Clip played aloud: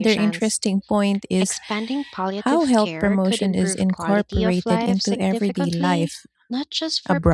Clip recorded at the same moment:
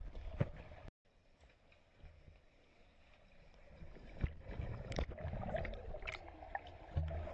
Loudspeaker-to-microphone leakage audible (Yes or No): No